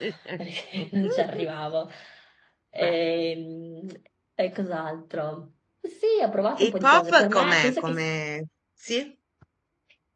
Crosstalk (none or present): present